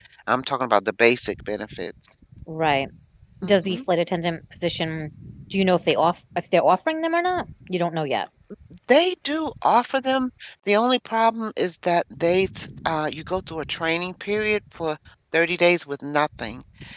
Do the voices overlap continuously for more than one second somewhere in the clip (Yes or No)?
No